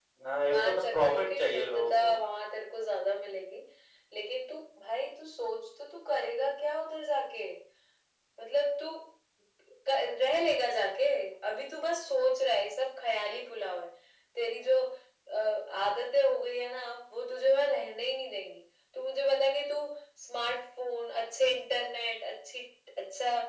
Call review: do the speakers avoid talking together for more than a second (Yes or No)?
No